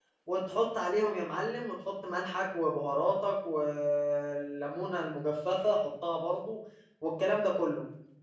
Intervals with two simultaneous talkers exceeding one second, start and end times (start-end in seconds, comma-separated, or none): none